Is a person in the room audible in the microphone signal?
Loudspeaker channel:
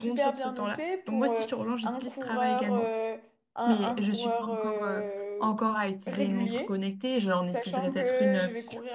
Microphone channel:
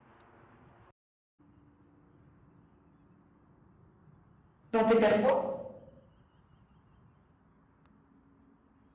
Yes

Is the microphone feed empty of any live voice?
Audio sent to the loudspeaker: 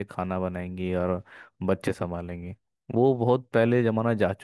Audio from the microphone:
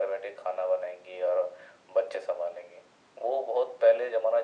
Yes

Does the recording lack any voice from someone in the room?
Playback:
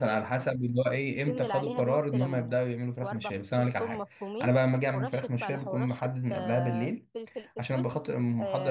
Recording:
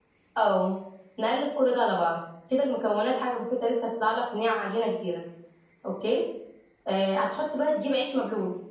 No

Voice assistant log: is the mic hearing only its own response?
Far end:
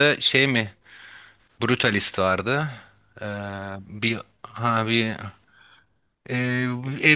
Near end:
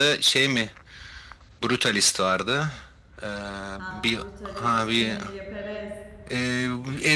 No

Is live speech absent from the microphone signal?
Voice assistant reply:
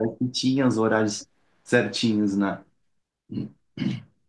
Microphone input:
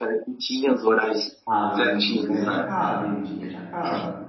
No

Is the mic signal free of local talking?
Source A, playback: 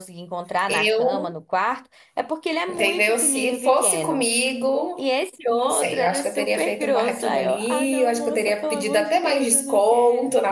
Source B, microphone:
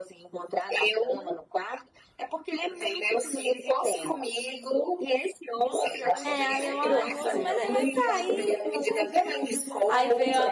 No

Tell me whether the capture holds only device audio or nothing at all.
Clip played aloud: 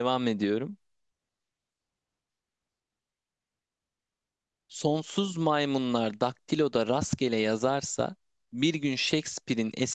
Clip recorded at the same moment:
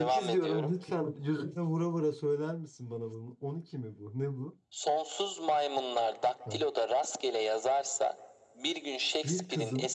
No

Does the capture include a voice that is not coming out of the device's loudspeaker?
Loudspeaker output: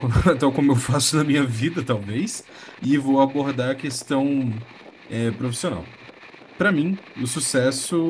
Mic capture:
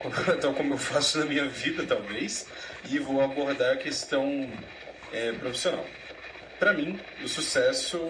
No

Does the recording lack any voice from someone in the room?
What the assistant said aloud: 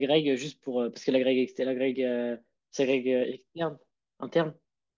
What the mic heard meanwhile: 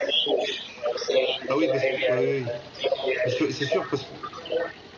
No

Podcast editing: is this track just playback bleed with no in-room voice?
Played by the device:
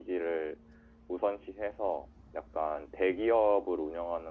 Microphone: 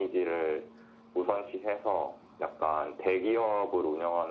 Yes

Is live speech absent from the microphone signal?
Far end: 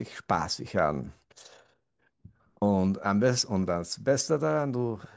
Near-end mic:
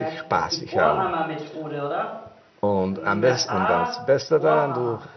No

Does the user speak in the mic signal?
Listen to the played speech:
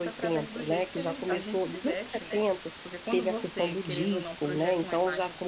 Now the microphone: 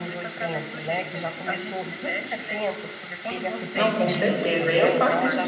Yes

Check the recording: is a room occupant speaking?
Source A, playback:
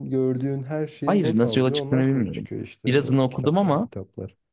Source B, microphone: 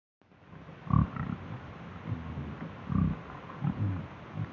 No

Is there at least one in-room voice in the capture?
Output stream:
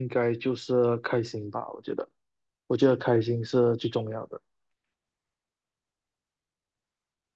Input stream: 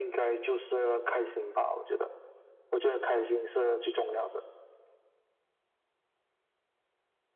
No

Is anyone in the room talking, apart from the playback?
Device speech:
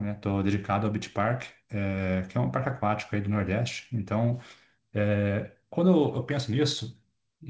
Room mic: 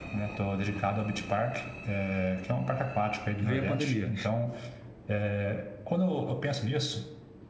Yes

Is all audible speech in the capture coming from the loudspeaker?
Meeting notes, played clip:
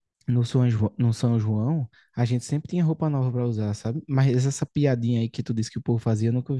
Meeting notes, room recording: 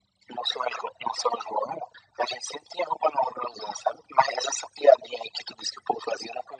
Yes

